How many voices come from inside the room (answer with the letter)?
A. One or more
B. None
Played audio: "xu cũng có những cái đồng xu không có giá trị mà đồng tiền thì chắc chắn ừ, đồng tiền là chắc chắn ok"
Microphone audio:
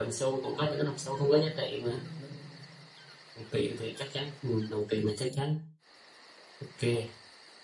A